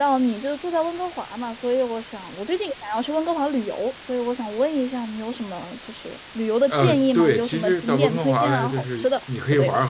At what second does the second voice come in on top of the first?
6.7 s

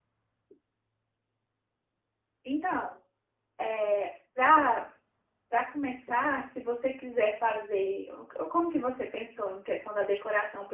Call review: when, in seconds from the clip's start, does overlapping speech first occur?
none

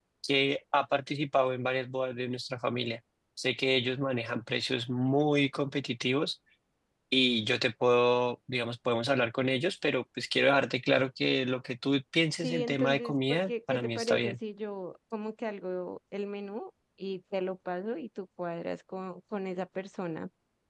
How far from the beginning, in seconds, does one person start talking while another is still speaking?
12.4 s

